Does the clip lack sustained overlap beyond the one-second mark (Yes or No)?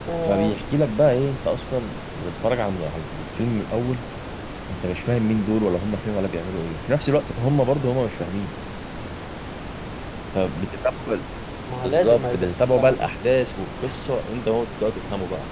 No